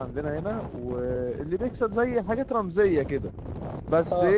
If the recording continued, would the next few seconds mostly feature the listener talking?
Yes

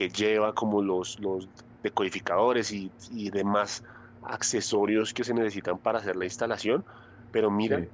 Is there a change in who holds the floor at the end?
No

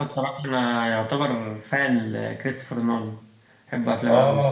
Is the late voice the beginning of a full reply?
Yes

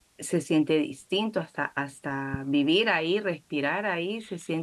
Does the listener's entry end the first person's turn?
No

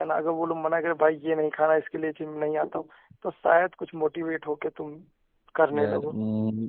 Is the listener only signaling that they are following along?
No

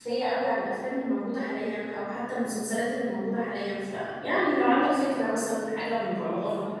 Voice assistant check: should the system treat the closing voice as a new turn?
Yes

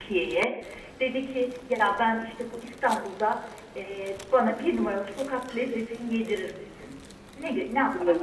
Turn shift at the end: Yes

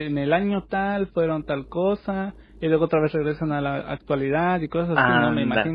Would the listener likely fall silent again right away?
No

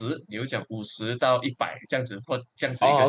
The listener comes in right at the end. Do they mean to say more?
Yes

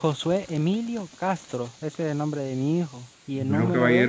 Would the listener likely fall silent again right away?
No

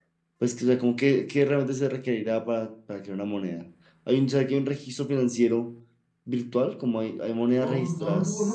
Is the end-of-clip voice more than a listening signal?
Yes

